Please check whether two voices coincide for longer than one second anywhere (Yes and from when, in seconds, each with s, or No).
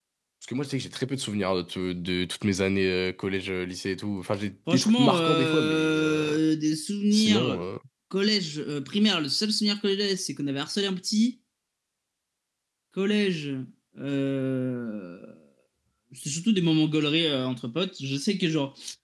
Yes, from 4.7 s